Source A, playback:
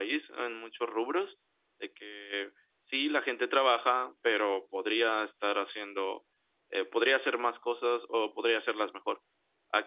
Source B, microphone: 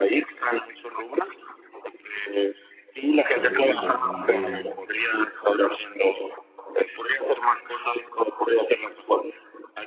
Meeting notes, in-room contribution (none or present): present